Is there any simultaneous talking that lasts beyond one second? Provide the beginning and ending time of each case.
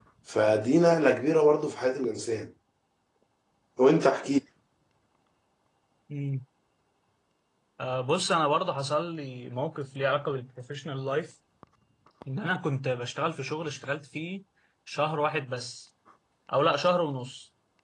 none

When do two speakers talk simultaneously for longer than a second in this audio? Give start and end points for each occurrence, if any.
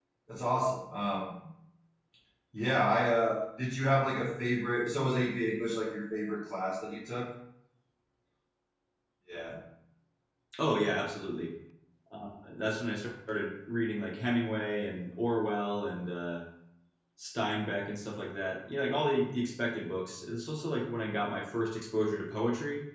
none

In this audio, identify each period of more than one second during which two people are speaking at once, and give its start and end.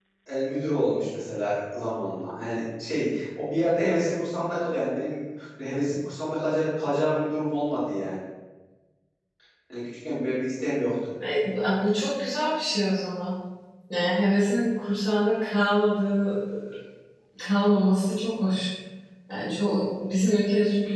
none

